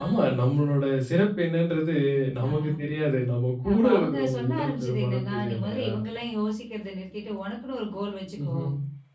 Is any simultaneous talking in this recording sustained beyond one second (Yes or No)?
Yes